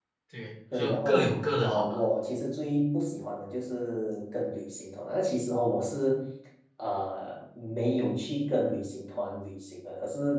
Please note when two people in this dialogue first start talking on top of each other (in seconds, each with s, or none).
0.7 s